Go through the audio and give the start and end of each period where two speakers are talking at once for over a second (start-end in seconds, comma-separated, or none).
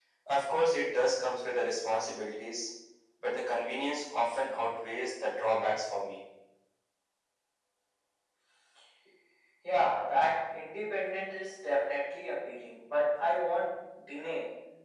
none